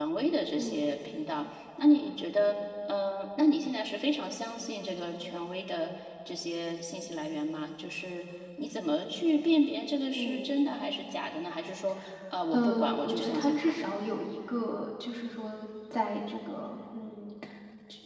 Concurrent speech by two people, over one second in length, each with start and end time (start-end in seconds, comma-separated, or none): 12.5-13.9